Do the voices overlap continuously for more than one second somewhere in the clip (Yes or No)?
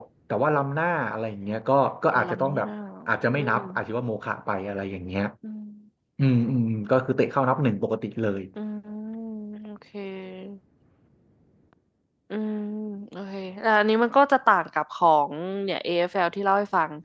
No